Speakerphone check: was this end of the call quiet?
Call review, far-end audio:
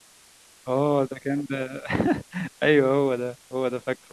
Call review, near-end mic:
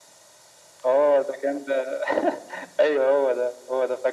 Yes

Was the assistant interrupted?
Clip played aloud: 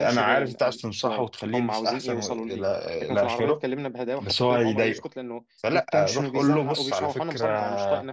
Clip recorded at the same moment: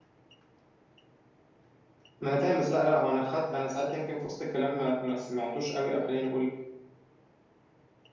Yes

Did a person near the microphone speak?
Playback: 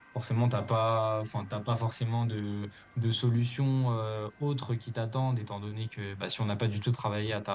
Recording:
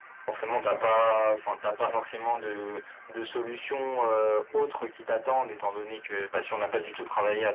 No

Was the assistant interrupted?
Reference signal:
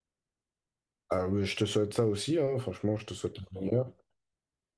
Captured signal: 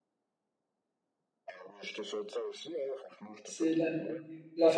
Yes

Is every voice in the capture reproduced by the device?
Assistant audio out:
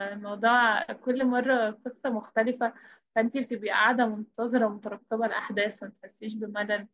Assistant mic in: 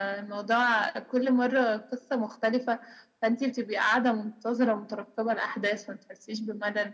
Yes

